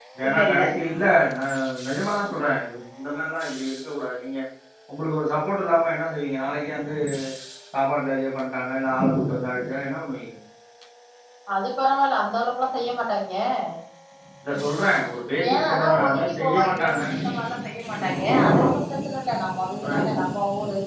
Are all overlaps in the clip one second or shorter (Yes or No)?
No